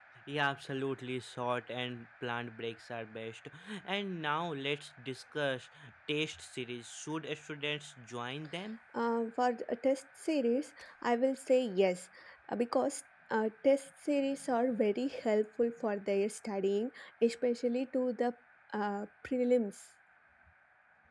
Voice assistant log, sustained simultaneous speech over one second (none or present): none